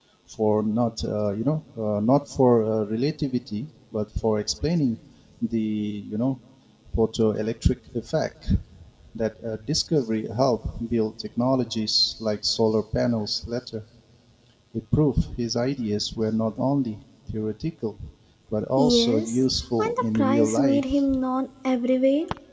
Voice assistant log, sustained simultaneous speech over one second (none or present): present